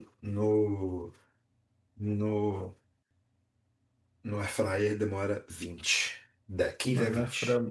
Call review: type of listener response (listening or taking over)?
taking over